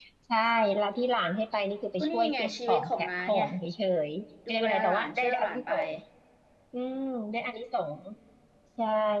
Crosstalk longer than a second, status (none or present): present